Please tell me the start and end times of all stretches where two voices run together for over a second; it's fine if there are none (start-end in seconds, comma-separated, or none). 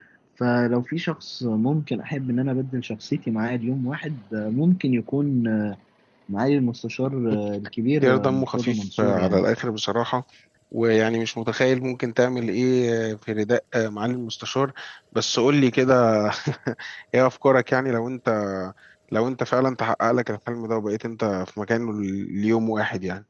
8.0-9.4